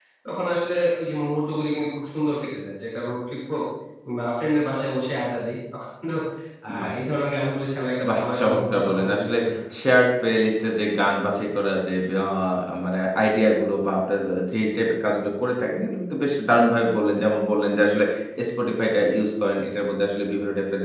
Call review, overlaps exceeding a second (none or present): present